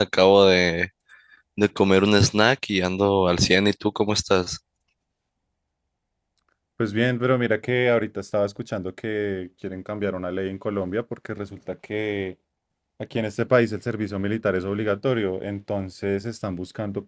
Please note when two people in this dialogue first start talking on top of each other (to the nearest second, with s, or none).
none